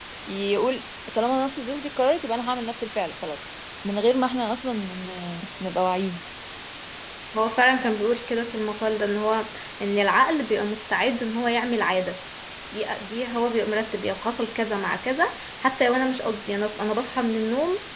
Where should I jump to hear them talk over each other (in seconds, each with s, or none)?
none